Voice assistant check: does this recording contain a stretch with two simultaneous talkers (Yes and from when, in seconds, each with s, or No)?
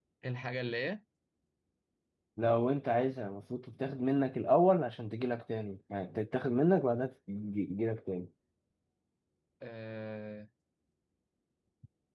No